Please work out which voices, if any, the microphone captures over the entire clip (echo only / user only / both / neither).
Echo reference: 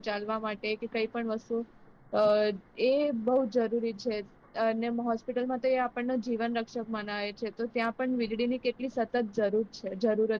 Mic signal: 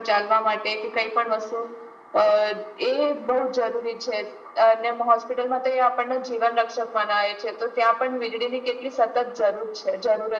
echo only